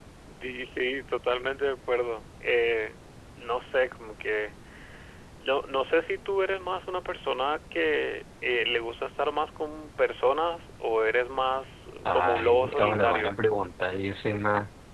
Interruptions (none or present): present